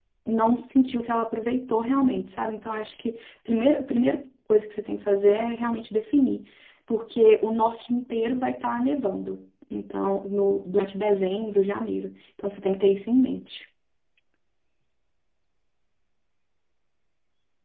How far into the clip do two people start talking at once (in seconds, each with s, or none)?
none